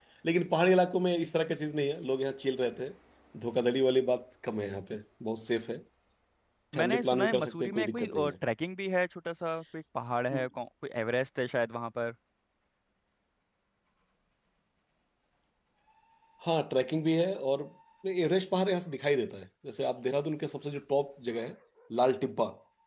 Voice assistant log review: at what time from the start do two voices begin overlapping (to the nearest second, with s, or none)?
7 s